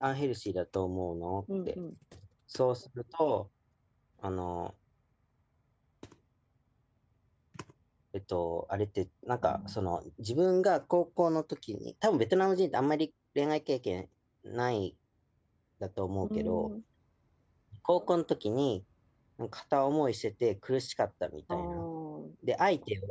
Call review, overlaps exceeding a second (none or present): none